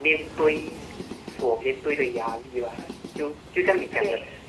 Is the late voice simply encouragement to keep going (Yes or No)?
Yes